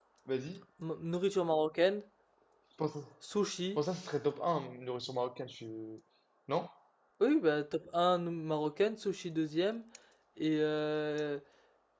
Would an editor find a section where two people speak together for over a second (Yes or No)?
No